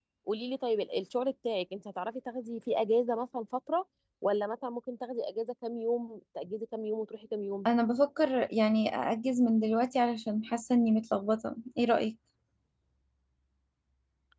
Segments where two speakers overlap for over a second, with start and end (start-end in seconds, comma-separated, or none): none